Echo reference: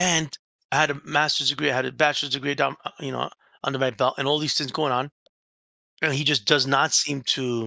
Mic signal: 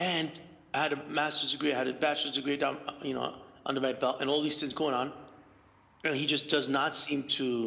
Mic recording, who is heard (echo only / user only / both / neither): echo only